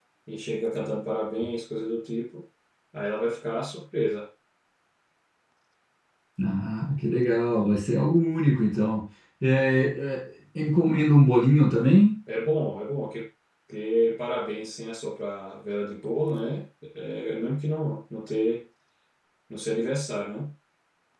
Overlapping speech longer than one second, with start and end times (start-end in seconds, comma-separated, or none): none